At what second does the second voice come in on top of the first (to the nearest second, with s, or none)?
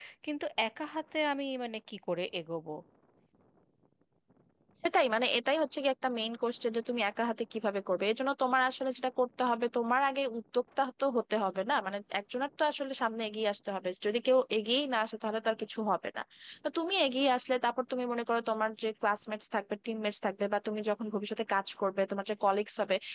none